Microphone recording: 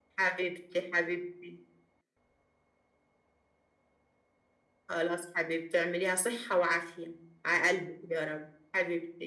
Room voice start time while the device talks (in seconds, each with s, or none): none